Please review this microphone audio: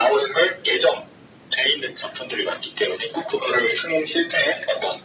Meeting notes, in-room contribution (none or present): none